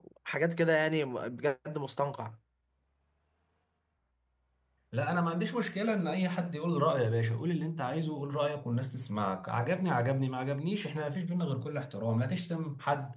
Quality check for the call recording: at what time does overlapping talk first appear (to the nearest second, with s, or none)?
none